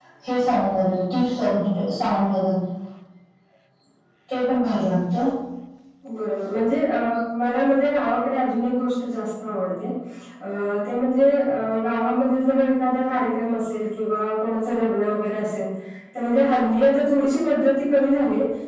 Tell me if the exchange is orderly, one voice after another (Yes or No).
Yes